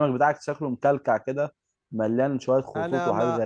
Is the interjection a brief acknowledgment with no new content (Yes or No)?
No